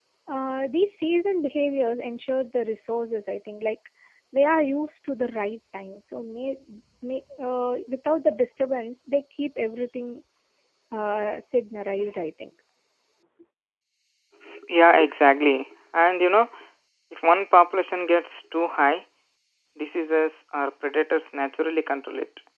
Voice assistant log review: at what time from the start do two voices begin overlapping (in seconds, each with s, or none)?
none